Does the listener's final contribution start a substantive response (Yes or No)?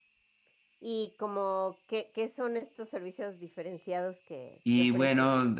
Yes